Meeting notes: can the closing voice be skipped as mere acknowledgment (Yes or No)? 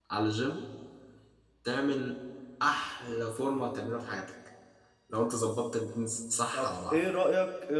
No